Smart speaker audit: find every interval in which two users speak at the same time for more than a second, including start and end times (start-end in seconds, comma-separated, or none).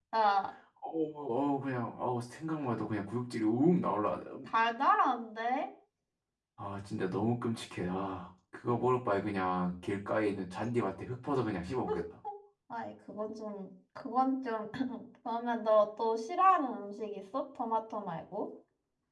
none